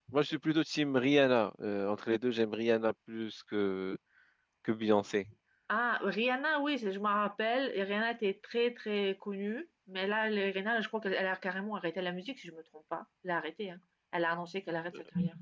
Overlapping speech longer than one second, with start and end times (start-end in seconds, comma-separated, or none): none